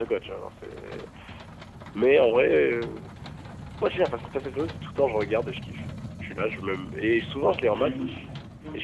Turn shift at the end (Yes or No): Yes